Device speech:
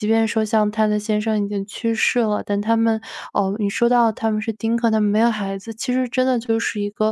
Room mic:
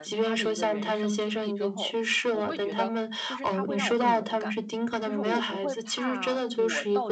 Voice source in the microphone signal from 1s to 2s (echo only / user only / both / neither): both